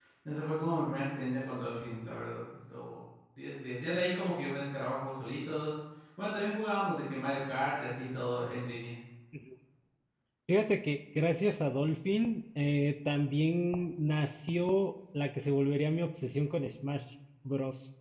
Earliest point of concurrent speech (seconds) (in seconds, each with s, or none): none